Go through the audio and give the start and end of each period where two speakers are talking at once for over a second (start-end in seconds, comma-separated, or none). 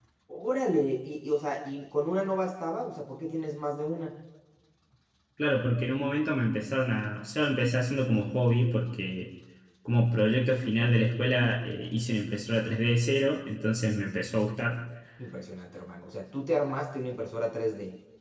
none